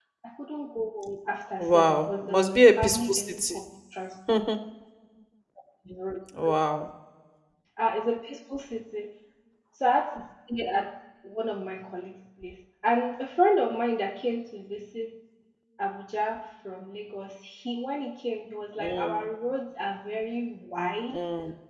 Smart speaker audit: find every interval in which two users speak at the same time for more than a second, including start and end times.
1.6-3.6

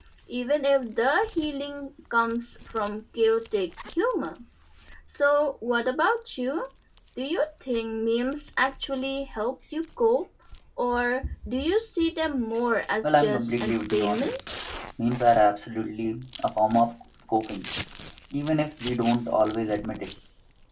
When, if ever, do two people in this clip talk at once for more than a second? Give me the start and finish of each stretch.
13.0-14.3

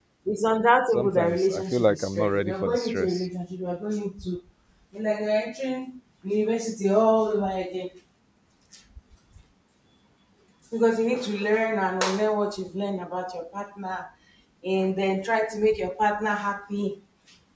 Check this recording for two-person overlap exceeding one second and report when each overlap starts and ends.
0.9-3.2

